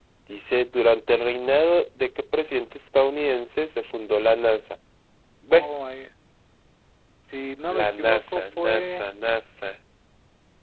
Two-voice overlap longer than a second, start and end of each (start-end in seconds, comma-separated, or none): 7.8-9.1